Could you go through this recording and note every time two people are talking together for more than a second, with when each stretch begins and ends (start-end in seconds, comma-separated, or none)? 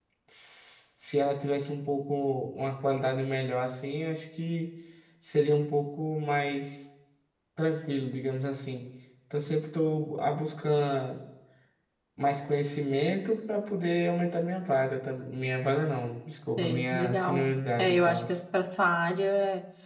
16.6-18.2